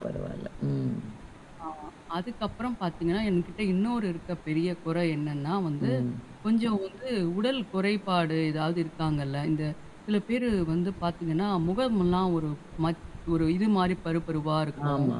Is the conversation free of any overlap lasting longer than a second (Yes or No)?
Yes